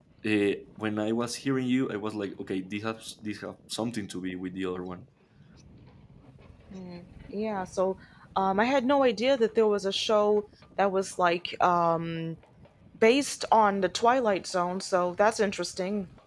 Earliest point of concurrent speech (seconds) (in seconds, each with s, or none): none